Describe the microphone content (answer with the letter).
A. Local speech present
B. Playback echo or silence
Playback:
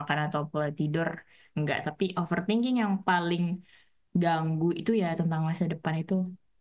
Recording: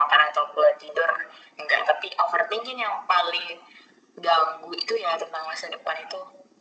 B